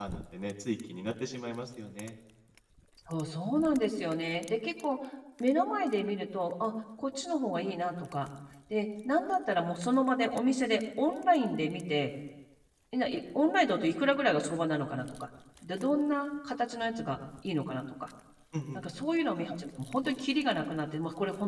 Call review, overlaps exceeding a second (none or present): none